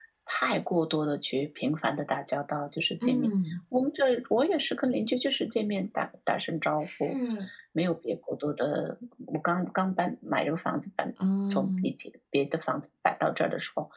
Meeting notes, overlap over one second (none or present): none